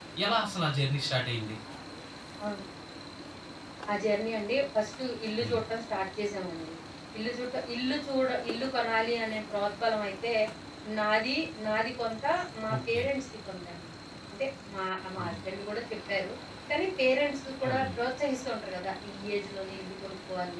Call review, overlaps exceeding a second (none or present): none